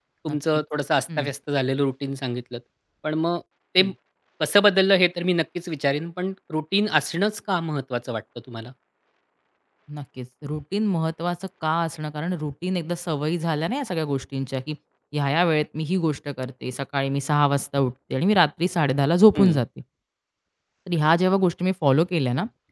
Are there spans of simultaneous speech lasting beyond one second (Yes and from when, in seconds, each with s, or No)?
No